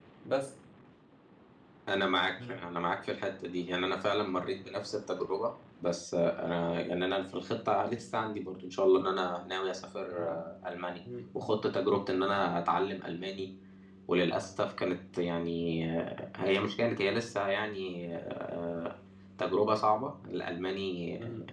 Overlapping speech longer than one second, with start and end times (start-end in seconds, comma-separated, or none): none